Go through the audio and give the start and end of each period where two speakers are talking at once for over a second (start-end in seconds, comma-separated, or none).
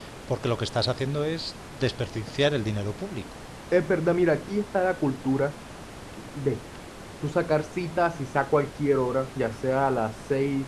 none